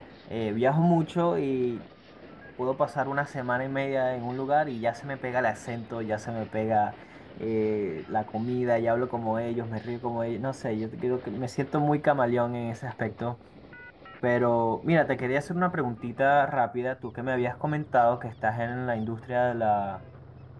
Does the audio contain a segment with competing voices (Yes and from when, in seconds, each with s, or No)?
No